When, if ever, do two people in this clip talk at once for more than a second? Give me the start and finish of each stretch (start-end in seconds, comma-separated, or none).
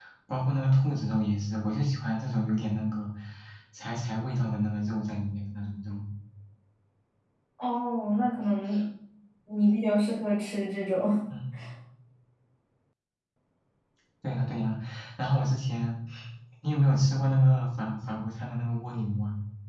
none